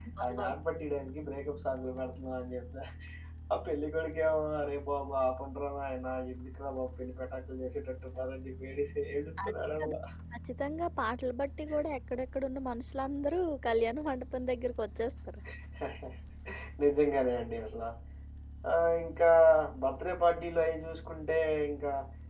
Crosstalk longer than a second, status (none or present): none